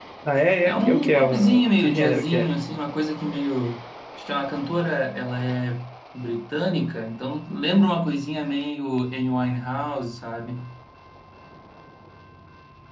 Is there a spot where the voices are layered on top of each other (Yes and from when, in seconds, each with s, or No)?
Yes, from 0.6 s